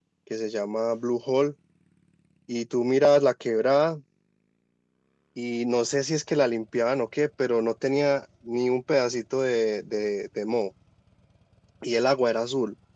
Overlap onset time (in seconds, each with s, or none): none